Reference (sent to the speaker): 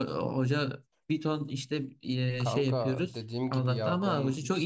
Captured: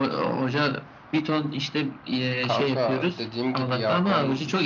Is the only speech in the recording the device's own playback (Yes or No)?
Yes